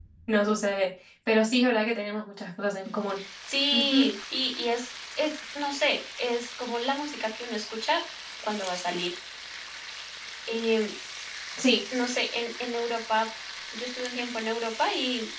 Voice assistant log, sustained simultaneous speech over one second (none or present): none